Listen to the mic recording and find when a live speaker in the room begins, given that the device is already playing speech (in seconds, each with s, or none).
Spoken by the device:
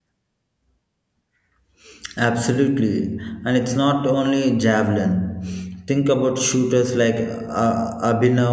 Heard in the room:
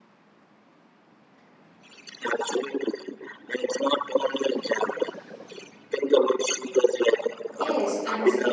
7.5 s